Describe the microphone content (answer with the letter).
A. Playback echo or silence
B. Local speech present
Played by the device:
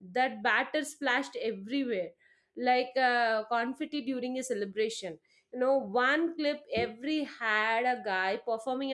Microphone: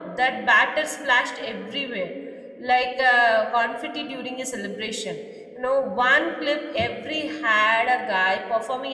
A